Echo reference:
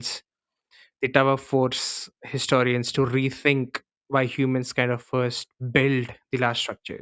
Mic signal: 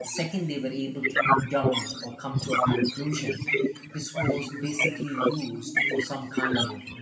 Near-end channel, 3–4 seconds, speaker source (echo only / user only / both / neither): both